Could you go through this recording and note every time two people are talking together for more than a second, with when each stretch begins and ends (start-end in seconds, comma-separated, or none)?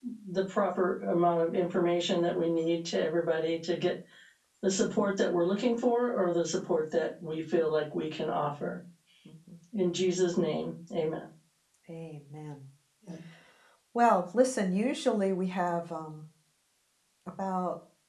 none